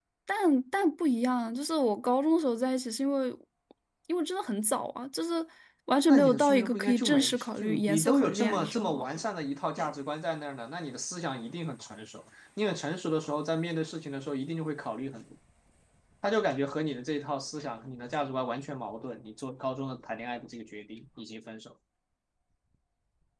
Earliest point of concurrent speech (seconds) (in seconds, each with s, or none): 6.1 s